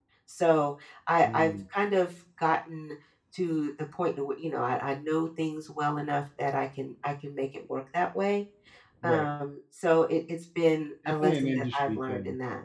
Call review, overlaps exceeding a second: present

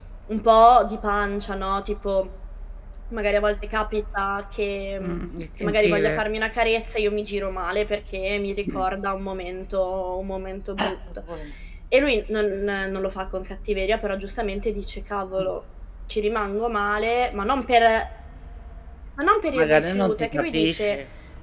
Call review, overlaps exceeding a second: present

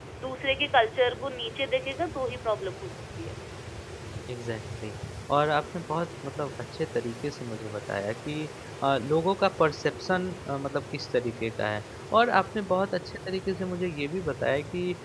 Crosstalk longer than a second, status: none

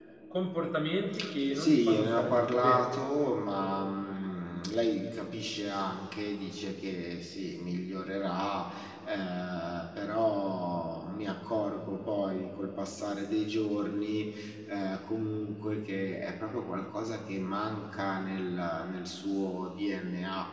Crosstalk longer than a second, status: present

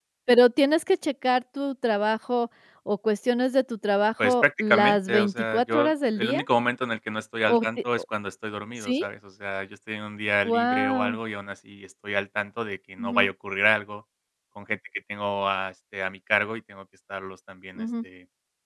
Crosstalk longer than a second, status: present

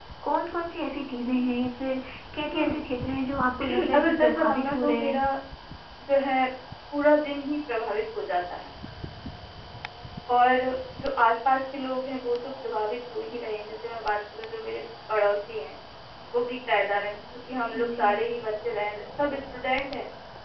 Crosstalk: present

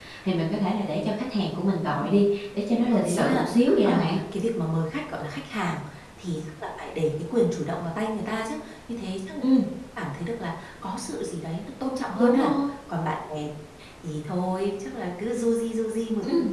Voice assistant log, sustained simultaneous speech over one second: present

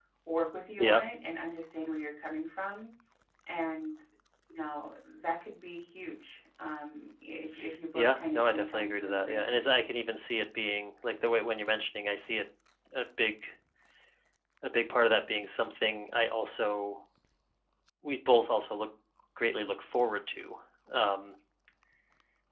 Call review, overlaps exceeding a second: present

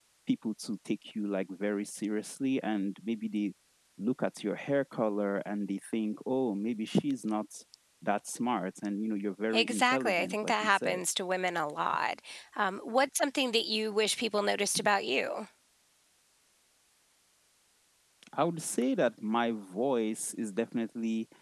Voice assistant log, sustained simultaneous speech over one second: present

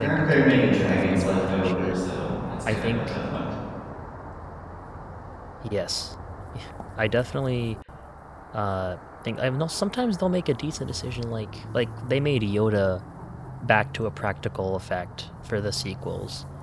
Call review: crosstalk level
present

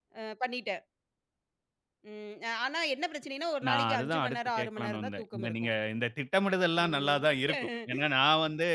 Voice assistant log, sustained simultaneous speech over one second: present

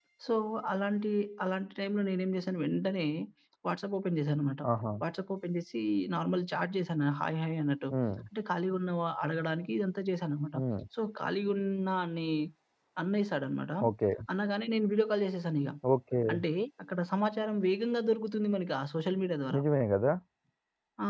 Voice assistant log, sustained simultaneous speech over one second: none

